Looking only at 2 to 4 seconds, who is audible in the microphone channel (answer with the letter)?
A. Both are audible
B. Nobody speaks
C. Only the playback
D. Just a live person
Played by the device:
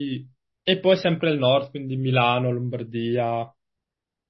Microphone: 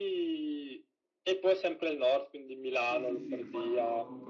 A